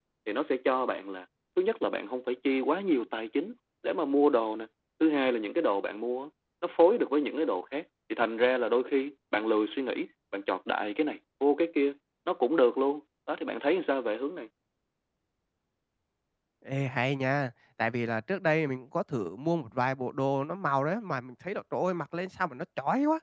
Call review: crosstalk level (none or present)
none